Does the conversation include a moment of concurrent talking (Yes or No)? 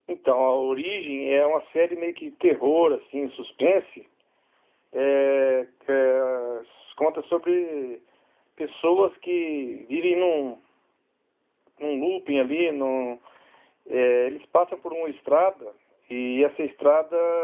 No